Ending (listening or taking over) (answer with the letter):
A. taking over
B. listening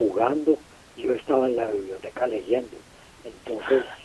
B